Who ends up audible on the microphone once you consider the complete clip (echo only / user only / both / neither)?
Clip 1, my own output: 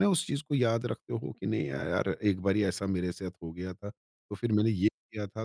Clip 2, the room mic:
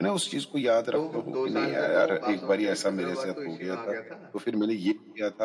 both